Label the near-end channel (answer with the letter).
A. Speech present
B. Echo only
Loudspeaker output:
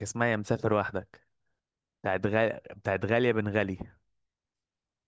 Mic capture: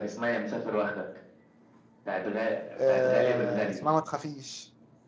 A